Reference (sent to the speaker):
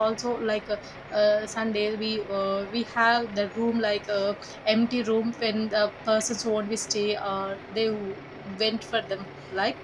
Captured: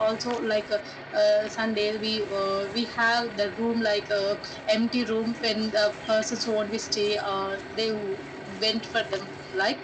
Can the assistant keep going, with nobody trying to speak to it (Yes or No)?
Yes